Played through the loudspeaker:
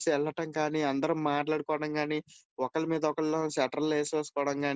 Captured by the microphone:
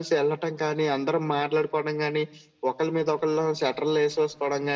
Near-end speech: none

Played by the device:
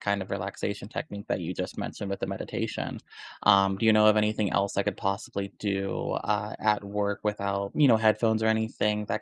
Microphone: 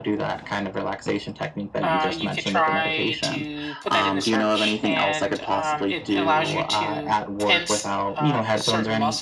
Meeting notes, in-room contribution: present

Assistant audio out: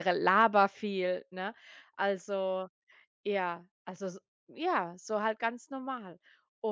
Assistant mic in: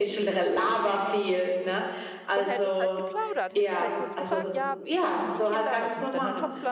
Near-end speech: present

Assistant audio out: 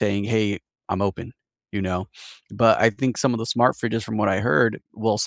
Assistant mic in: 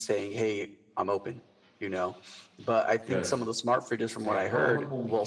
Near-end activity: present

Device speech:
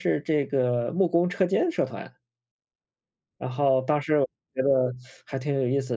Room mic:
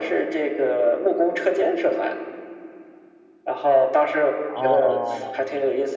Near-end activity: present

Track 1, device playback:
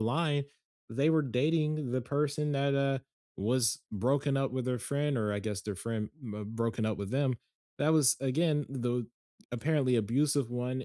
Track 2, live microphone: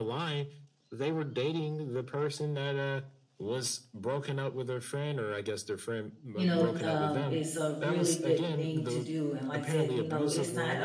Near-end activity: present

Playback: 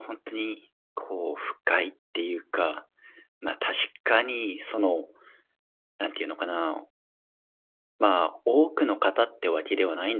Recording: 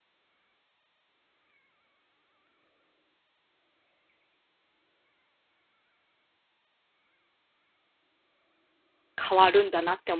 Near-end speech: present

